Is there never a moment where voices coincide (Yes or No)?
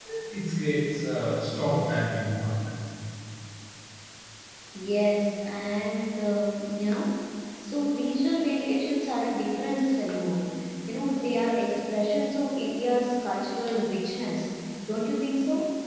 Yes